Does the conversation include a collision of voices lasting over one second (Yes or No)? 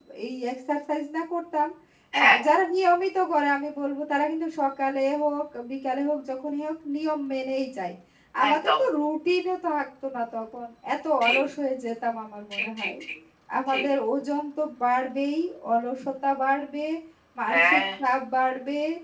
No